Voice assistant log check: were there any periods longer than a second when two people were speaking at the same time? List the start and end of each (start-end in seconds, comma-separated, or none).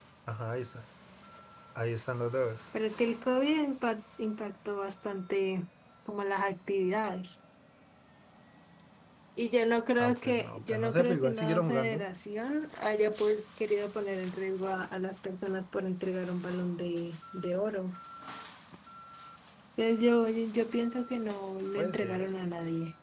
10.0-12.1